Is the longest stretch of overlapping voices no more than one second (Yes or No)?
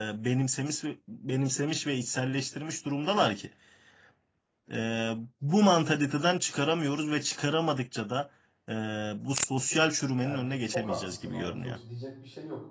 No